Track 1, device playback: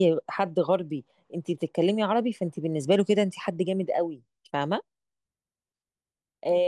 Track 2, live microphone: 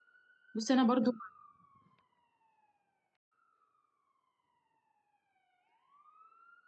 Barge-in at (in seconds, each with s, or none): 0.5 s